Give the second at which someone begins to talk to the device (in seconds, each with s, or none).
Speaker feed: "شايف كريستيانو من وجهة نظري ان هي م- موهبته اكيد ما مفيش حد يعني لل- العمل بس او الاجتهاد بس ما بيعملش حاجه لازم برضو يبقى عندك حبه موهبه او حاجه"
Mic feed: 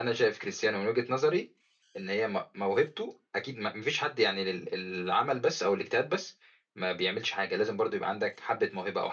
none